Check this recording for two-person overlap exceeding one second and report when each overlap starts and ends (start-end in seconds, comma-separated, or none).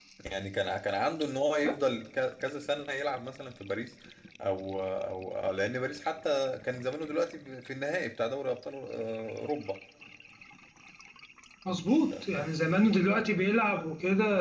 none